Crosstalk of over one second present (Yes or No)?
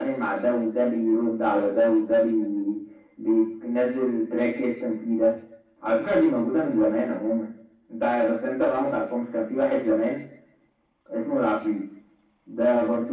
No